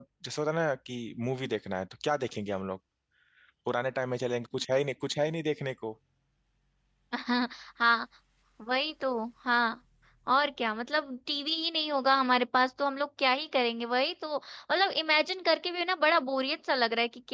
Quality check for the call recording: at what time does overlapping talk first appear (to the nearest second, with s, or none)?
none